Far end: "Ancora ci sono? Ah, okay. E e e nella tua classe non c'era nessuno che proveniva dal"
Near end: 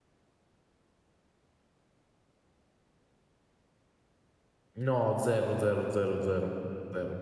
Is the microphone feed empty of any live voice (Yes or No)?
No